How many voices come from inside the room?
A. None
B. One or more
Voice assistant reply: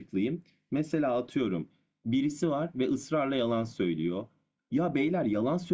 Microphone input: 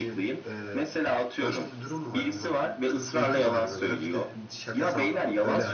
B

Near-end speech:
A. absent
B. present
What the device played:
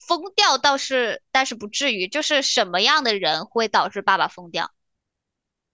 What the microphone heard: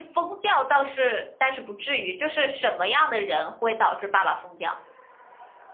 A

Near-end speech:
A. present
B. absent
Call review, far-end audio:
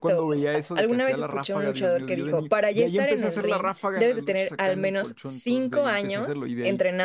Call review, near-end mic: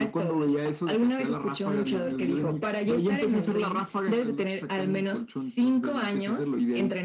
B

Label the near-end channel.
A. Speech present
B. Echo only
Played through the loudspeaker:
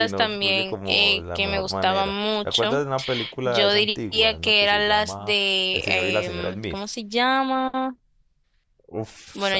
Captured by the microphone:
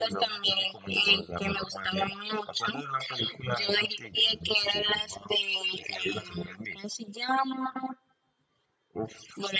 B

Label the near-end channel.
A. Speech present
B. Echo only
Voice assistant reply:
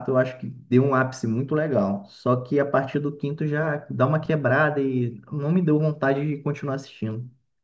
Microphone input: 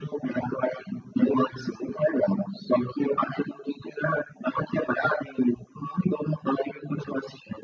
B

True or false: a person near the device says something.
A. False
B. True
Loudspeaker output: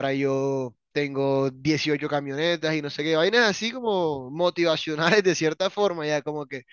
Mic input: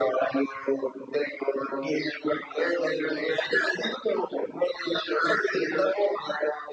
A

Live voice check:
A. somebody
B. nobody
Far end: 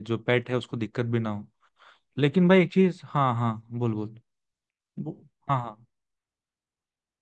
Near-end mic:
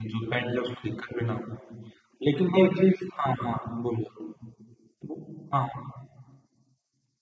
B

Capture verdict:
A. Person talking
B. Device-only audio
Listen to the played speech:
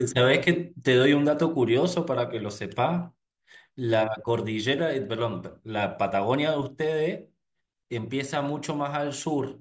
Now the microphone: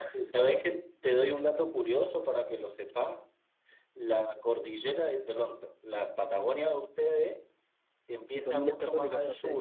A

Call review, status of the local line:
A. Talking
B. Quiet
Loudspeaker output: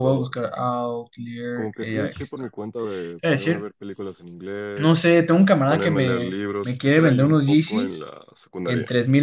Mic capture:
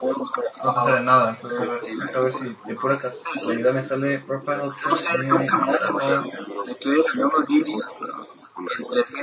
A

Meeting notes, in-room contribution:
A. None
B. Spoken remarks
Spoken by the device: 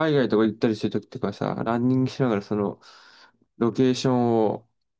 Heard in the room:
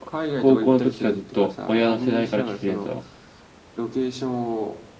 B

